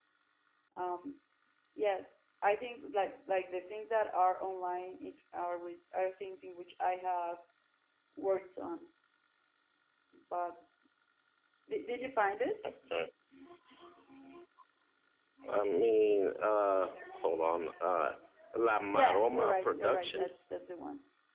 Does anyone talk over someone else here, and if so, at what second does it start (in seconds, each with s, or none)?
18.9 s